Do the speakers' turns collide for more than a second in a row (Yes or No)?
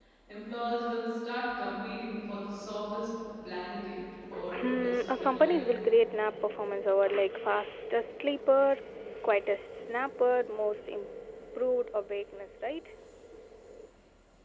Yes